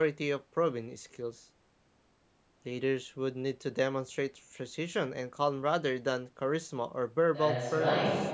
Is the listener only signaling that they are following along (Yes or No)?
No